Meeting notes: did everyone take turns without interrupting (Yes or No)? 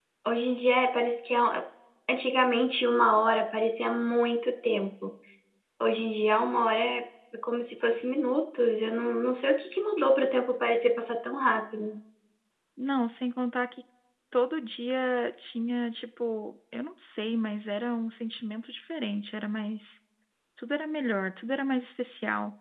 Yes